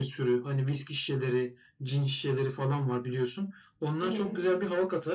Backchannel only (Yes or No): Yes